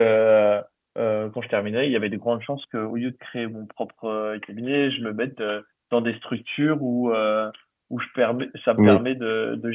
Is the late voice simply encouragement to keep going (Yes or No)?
Yes